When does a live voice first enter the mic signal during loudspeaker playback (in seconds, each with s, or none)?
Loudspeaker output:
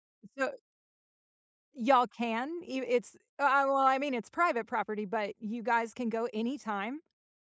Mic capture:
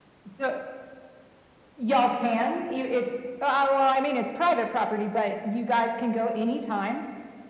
none